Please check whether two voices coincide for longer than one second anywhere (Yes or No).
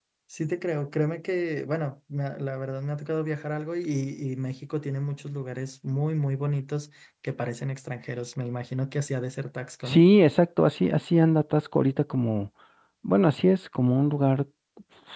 No